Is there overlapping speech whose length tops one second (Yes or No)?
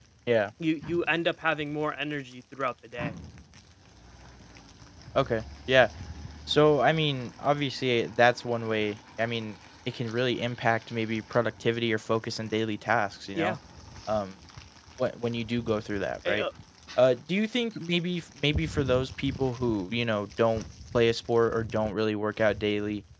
No